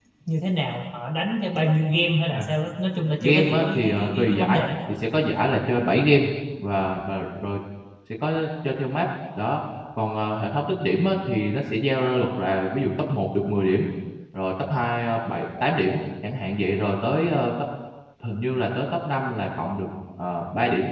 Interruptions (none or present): present